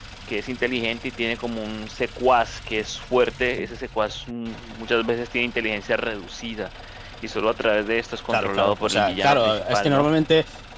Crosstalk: present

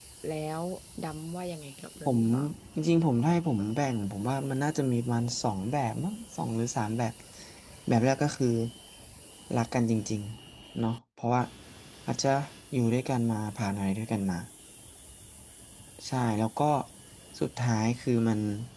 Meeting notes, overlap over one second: none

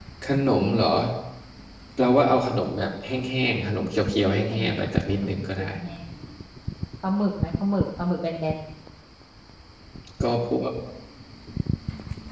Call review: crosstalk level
present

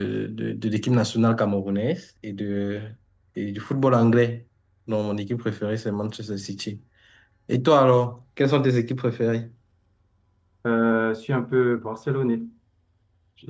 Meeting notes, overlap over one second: none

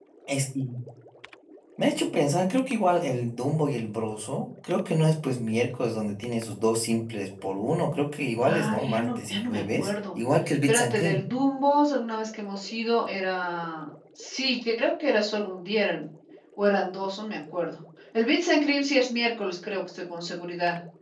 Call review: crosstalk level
present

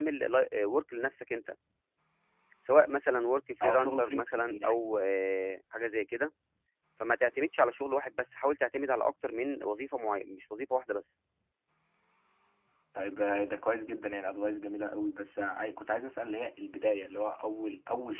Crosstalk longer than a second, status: present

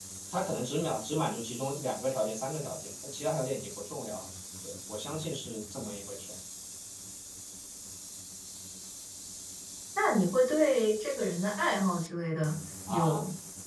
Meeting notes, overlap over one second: none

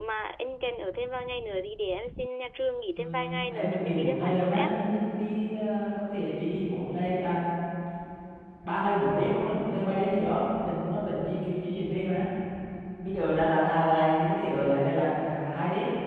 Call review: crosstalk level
present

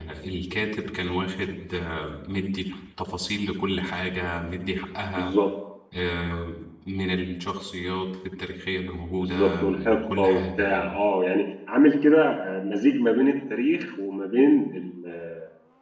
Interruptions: present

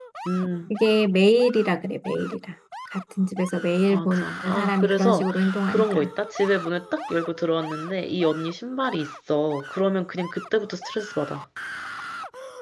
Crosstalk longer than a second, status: present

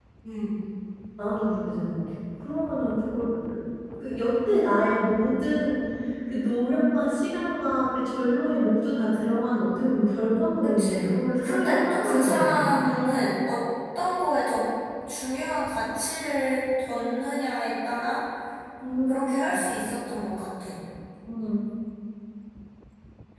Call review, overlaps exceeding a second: present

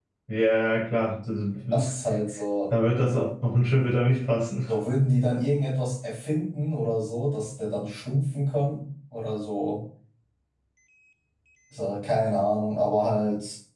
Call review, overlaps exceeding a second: none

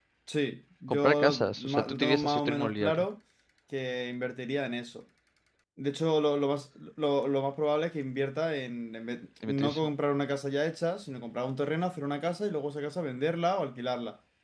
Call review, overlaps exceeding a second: present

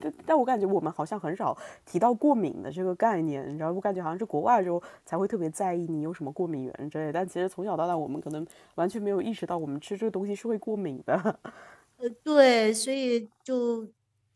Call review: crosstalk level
none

